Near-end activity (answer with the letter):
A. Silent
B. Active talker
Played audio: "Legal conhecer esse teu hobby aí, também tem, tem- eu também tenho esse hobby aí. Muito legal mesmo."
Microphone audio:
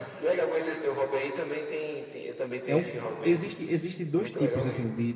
B